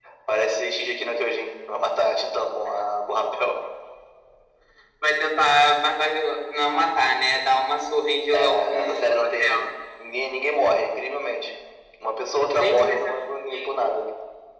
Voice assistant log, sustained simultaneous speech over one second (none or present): present